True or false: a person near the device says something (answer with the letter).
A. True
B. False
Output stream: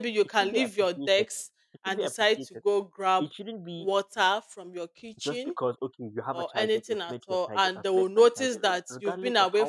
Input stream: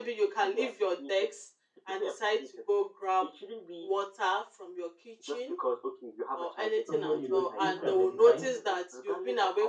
A